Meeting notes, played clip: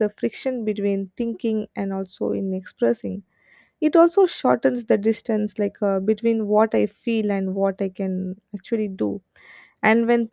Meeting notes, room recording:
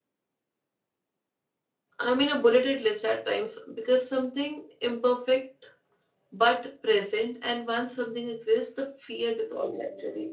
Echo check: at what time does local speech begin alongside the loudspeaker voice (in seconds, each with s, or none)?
2.0 s